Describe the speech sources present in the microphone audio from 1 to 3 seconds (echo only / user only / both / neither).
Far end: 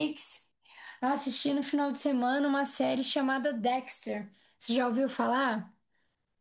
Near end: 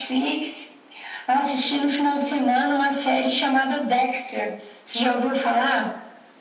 echo only